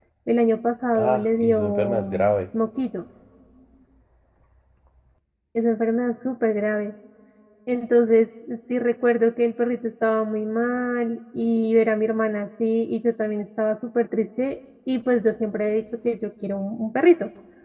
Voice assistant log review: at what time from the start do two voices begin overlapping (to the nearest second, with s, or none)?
1 s